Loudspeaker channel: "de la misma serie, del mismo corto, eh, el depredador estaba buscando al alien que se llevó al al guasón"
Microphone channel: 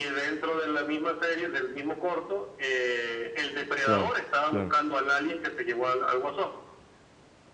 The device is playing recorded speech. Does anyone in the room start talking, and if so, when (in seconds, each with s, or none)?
3.8 s